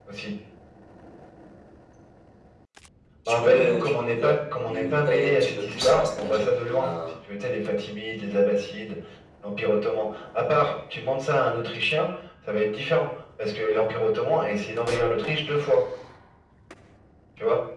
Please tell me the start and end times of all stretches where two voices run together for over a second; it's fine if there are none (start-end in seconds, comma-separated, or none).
3.2-6.9